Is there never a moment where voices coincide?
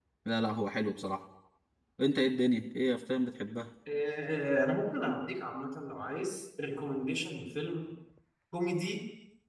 Yes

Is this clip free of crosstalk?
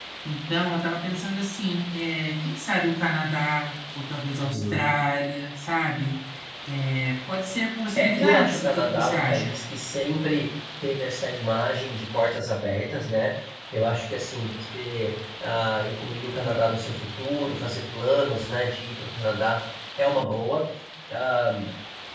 No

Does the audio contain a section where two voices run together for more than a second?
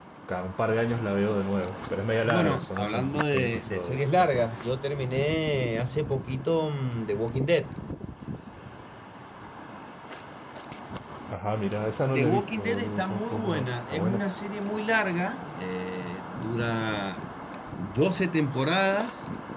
Yes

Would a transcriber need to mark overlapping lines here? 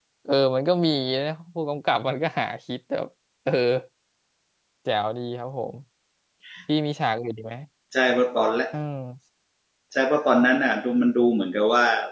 No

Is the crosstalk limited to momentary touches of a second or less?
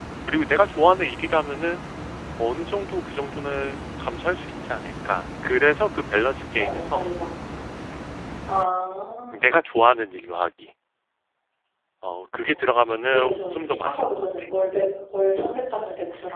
No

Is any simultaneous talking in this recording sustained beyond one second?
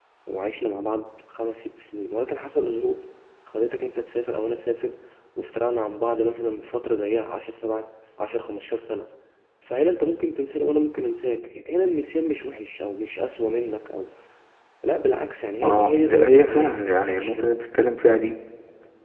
Yes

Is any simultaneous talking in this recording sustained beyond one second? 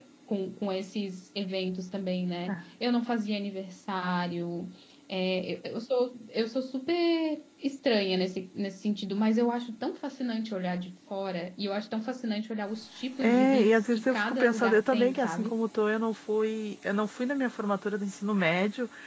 Yes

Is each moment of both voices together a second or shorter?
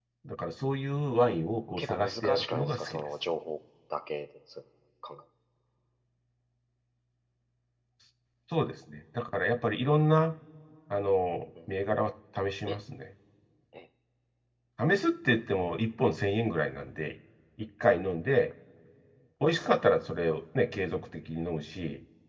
No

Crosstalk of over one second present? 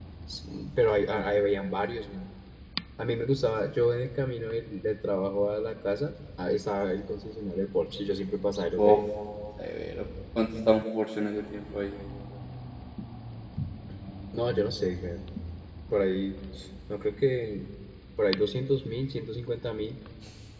No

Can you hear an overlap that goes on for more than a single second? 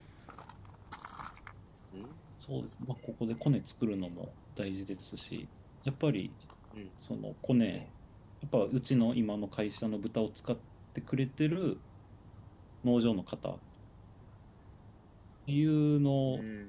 No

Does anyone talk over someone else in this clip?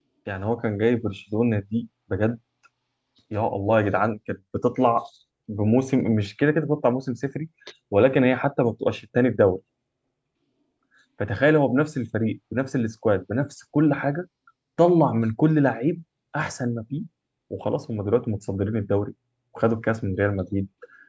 No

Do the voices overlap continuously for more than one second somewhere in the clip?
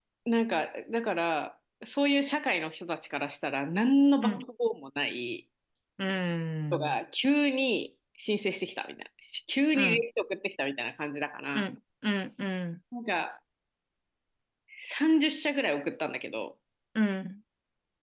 No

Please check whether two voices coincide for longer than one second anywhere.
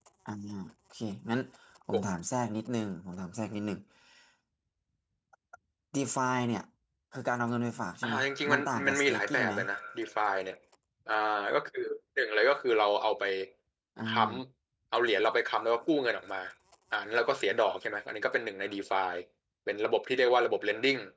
Yes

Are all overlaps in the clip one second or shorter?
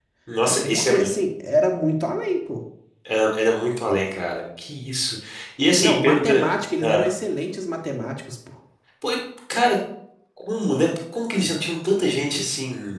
No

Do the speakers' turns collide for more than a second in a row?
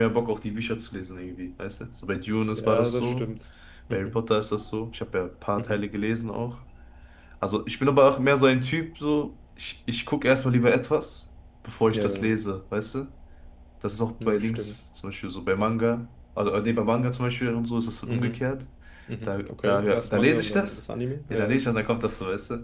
Yes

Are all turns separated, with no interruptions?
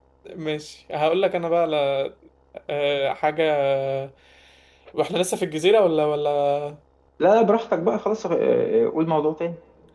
Yes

